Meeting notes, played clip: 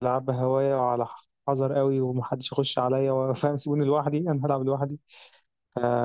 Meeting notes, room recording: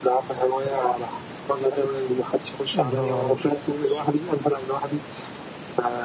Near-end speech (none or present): present